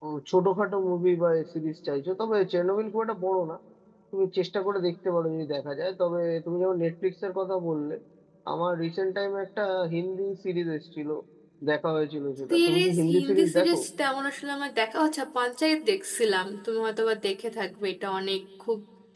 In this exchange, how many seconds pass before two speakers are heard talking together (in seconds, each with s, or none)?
12.5 s